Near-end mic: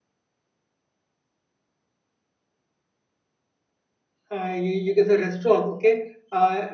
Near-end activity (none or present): present